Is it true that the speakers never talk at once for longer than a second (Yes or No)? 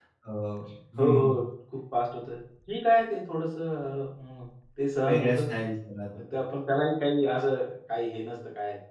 Yes